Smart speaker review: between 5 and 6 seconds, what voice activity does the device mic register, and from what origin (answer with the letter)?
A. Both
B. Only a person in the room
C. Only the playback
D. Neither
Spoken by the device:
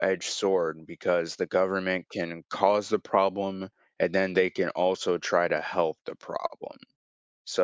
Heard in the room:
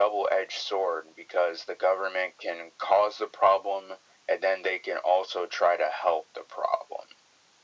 C